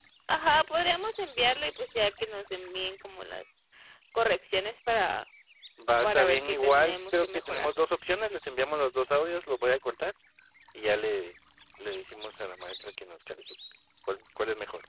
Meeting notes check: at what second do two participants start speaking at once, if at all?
6.0 s

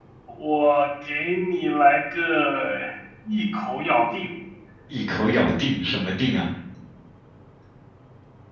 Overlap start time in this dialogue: none

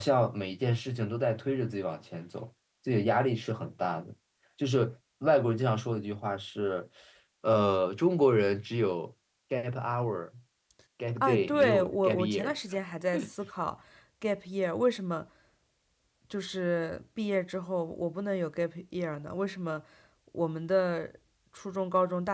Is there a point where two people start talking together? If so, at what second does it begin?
11.2 s

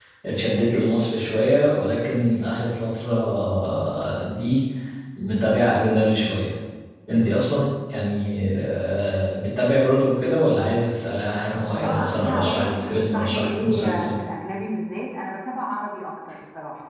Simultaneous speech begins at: 11.8 s

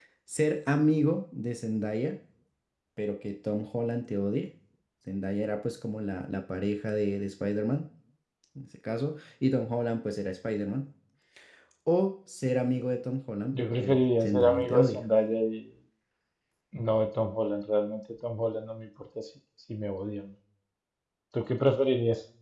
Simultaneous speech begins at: 13.5 s

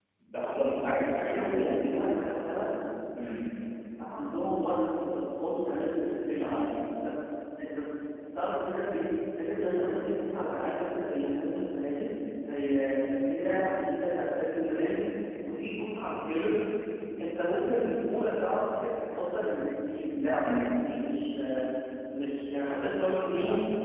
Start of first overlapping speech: 0.7 s

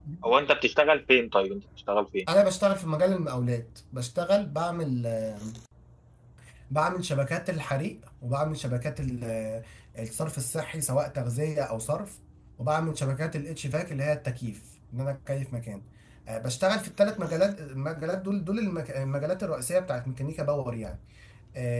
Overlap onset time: none

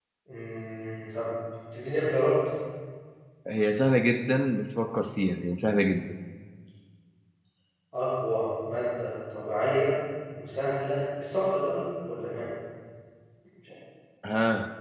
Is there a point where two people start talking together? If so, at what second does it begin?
none

